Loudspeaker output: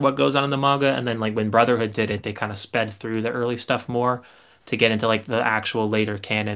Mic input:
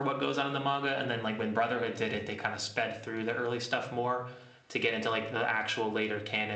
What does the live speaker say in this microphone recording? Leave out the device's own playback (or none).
none